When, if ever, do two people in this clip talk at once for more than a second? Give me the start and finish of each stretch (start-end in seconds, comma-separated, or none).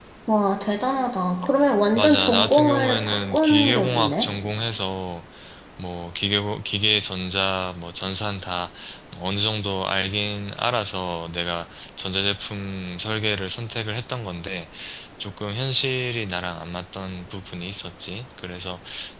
1.9-4.3